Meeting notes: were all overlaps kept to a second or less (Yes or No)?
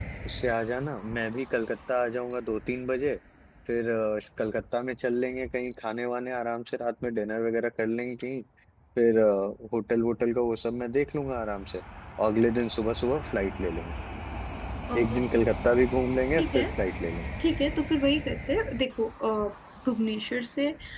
Yes